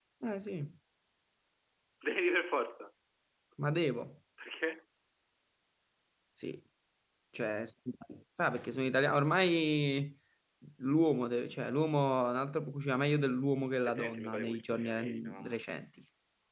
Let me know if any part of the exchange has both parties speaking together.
Yes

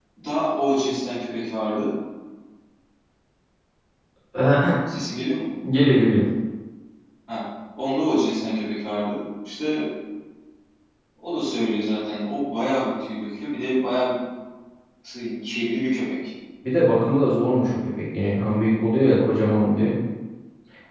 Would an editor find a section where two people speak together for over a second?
No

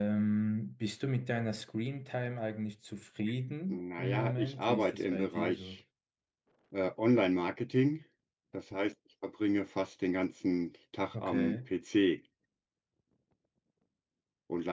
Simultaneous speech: Yes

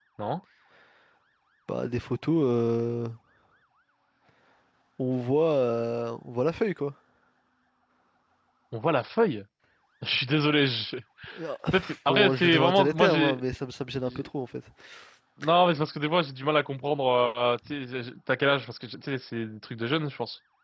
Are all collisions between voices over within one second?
No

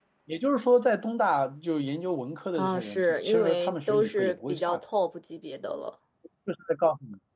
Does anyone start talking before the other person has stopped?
Yes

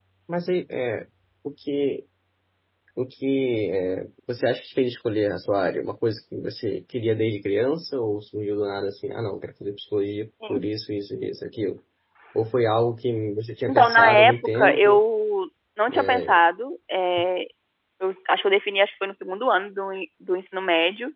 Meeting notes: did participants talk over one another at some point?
Yes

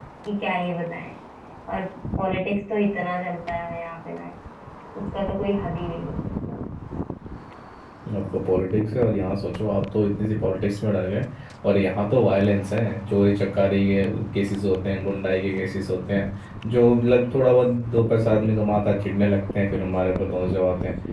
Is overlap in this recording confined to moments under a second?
Yes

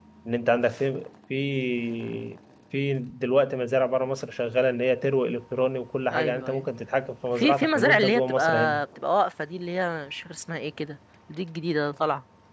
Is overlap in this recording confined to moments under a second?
No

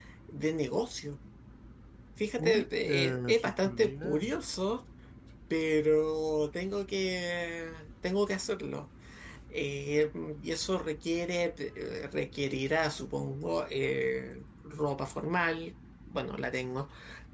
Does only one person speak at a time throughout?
No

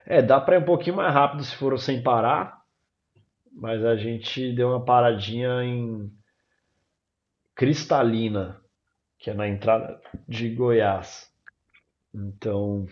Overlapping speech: No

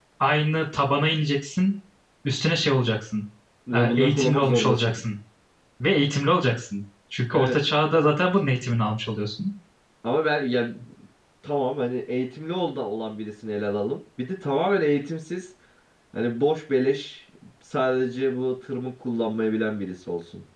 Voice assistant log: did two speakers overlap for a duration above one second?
Yes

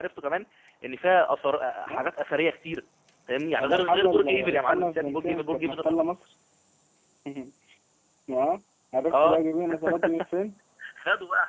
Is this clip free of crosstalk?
No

